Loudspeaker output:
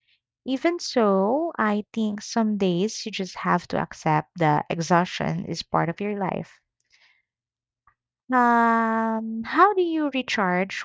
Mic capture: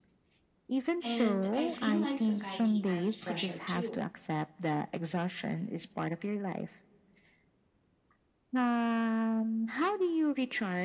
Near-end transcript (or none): And I feel like society adds pressure too,